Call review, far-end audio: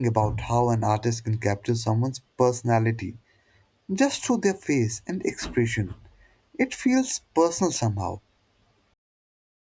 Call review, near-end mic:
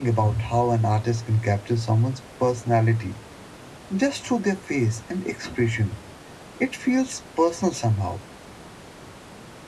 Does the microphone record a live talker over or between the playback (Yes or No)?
No